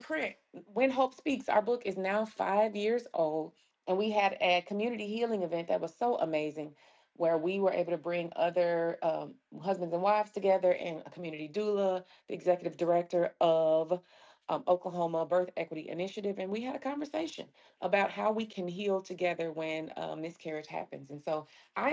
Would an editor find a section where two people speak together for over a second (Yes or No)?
No